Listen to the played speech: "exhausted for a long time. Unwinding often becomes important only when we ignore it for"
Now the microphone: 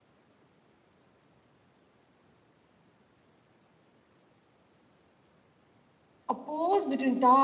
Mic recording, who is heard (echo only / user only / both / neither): user only